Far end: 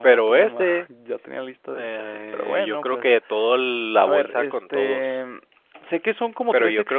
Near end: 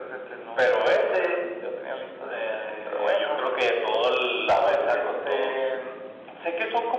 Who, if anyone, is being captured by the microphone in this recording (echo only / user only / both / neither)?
echo only